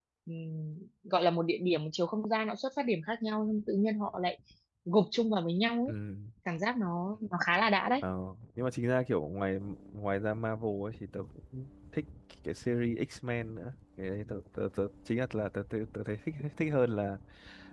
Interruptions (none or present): none